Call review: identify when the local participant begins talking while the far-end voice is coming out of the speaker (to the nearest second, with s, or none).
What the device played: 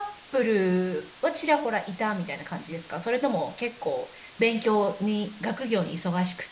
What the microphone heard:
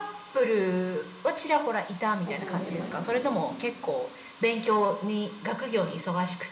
2 s